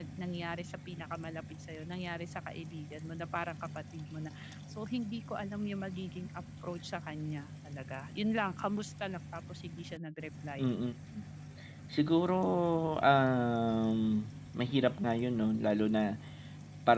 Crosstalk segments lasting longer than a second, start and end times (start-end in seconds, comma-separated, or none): none